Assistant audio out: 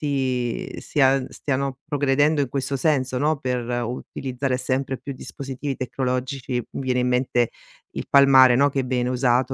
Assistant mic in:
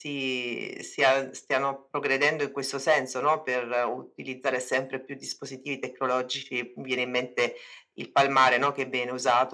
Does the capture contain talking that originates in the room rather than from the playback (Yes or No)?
No